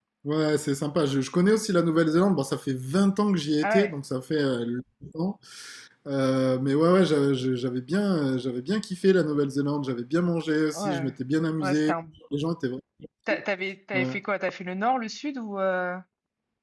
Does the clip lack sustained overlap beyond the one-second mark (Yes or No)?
Yes